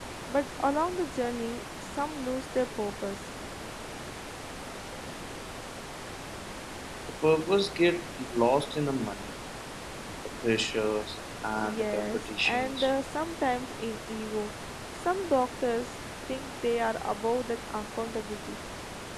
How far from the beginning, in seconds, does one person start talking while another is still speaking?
11.6 s

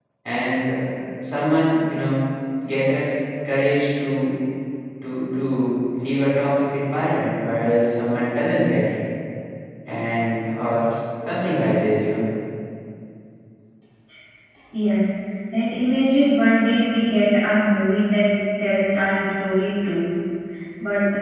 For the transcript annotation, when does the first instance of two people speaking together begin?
none

